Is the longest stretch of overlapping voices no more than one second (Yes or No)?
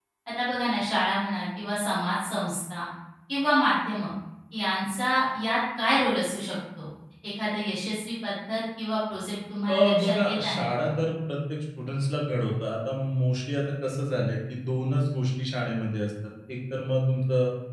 No